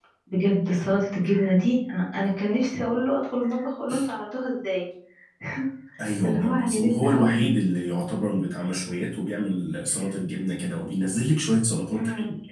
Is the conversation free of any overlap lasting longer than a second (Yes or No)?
No